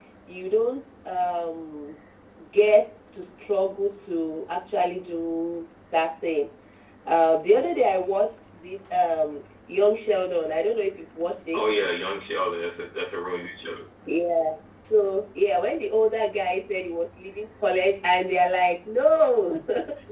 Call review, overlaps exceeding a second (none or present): none